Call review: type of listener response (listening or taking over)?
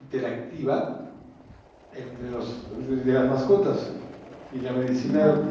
listening